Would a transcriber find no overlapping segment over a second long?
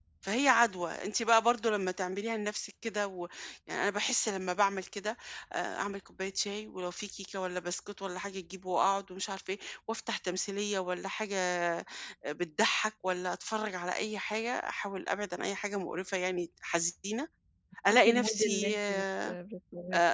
No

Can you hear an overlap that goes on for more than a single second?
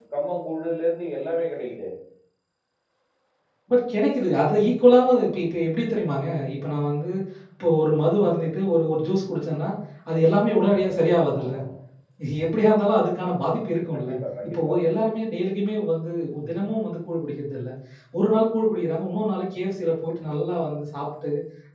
No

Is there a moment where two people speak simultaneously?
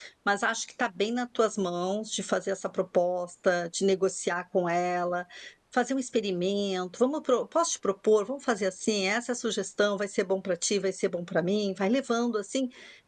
No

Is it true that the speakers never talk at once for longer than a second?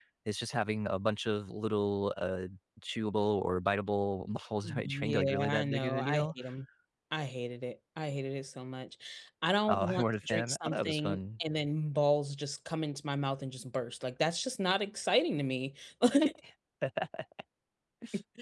No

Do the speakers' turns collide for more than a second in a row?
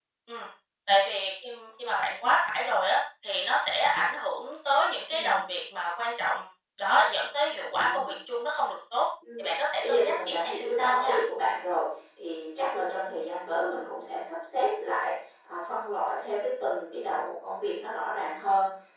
Yes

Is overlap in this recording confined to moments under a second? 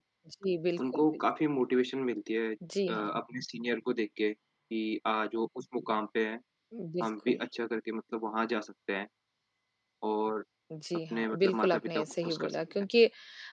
No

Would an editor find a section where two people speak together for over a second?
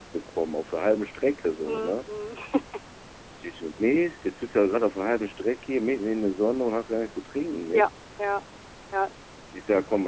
No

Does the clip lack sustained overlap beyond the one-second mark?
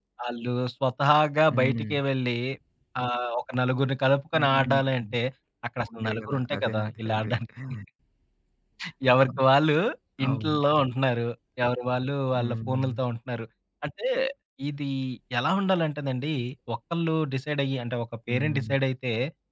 No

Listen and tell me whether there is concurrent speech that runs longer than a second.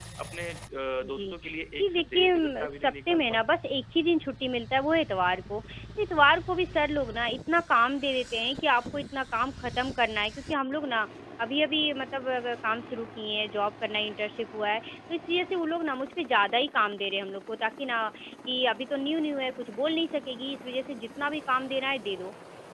Yes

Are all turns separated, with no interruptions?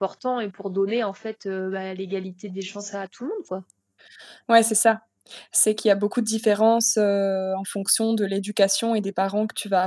Yes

